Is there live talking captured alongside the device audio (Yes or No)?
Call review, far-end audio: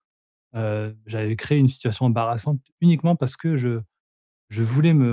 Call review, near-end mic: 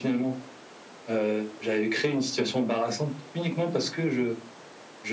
No